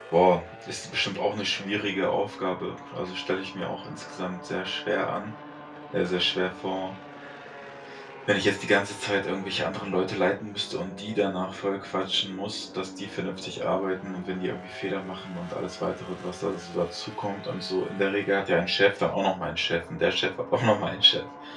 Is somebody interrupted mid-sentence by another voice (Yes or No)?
No